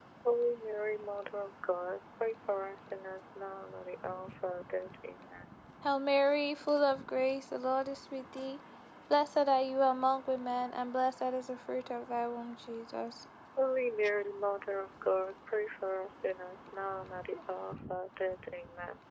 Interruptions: none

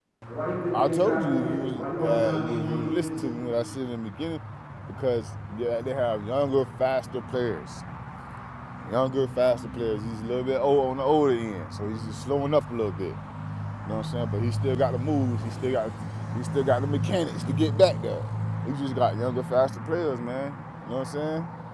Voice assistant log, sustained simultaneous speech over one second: present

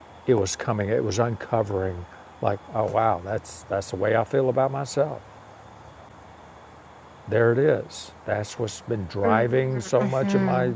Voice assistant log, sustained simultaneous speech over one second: present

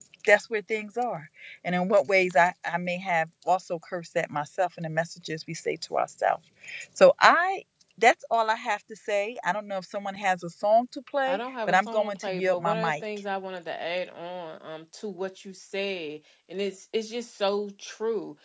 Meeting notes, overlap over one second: present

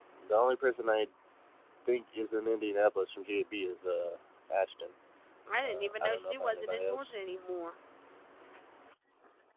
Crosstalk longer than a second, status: present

